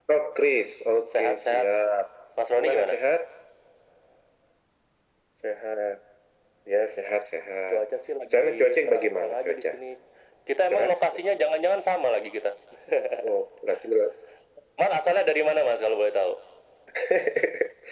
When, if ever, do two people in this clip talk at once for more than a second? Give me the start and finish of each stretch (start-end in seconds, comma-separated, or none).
8.3-9.6